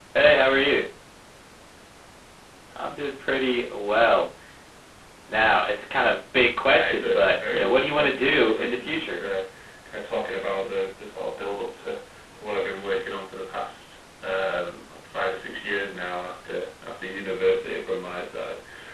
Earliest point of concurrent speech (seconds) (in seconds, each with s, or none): 6.7 s